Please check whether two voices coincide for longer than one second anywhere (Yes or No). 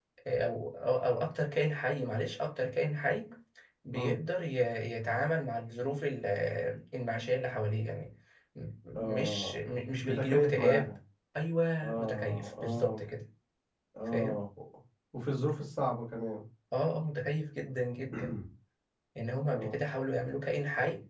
Yes